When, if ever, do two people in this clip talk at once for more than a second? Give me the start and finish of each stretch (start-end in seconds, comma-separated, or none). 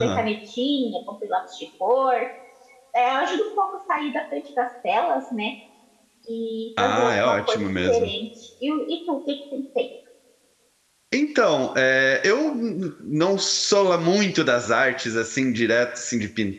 6.8-8.1